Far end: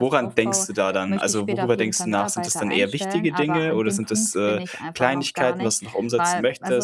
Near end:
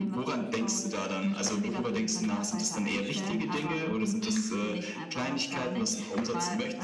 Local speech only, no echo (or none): none